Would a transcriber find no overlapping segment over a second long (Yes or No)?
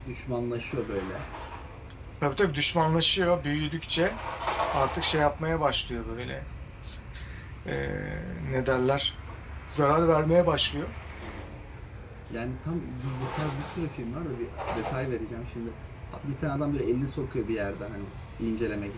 Yes